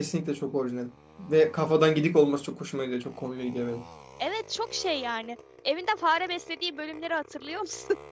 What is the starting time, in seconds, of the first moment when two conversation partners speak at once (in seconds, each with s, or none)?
none